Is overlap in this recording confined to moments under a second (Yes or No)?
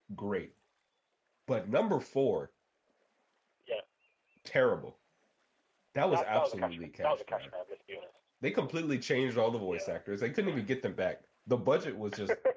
No